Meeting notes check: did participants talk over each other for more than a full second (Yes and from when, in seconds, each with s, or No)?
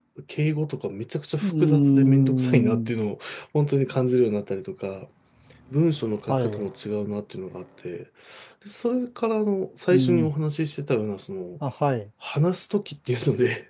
Yes, from 1.4 s